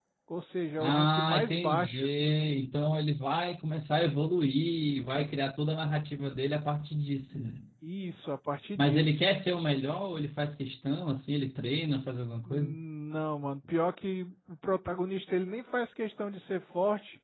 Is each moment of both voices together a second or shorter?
No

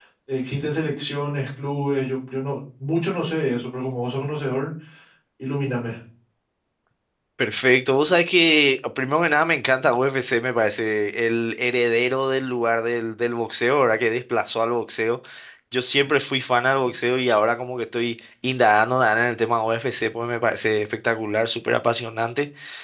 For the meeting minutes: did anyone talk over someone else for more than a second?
No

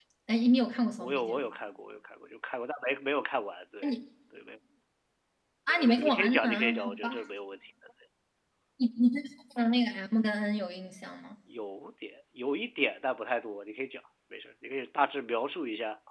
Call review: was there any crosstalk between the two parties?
Yes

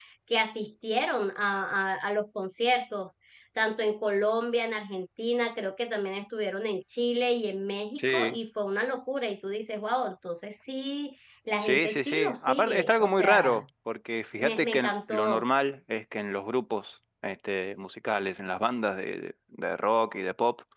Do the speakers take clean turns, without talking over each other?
No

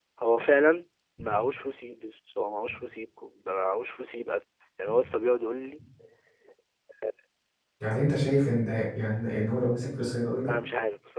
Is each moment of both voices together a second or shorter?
Yes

